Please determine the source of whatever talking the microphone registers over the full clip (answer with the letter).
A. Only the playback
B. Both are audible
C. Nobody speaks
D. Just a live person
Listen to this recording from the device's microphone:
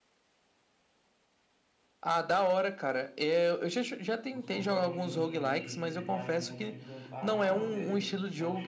B